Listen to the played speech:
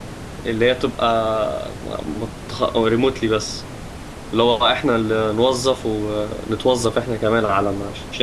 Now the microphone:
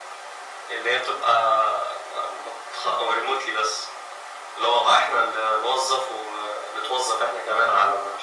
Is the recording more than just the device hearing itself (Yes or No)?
No